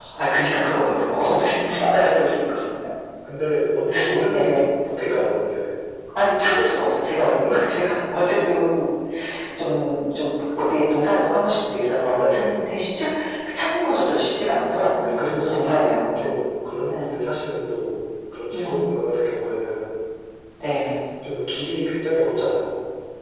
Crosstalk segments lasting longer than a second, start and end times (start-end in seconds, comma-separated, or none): 15.0-16.3